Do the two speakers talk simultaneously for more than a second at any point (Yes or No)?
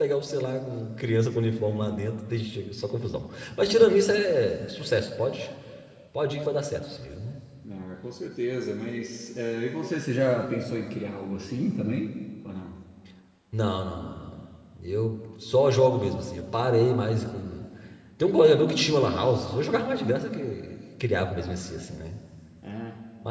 No